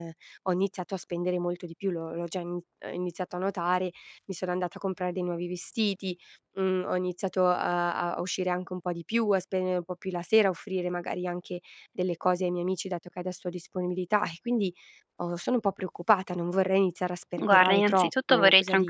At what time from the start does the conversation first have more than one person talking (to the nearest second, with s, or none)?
17 s